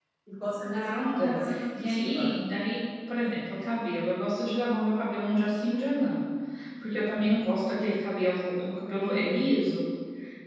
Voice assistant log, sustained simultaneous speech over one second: present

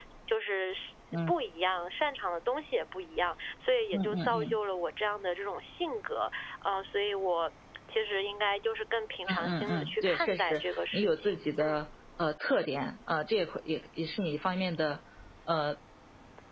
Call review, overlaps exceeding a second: present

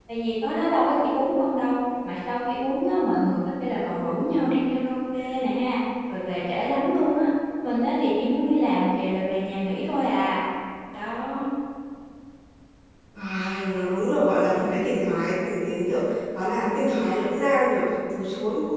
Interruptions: none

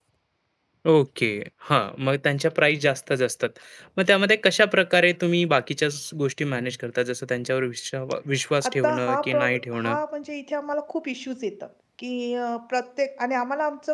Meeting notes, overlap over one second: present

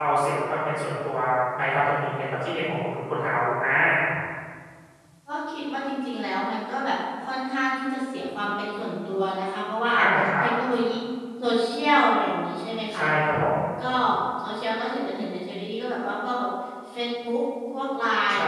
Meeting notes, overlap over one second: none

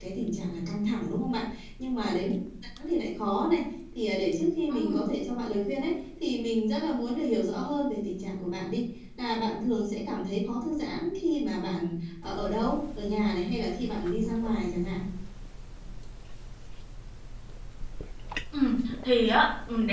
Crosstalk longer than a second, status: none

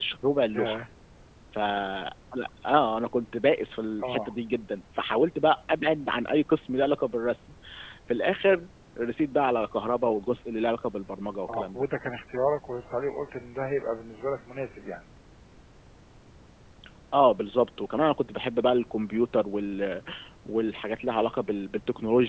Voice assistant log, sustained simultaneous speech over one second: none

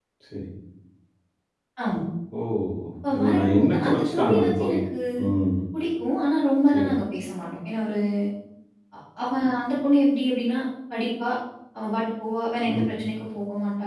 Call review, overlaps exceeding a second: present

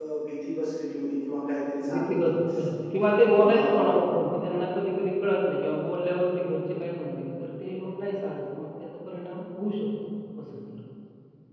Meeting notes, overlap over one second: none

